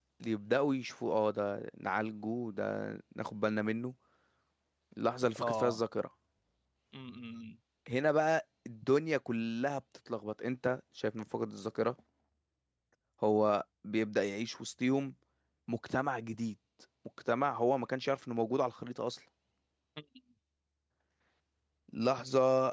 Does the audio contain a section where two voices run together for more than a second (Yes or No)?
No